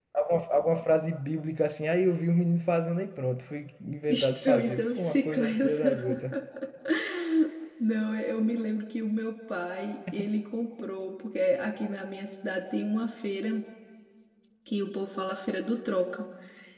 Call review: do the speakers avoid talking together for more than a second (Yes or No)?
No